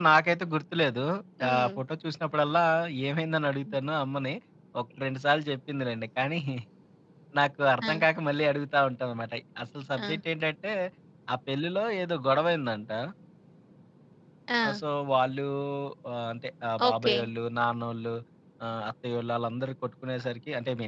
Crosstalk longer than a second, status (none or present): none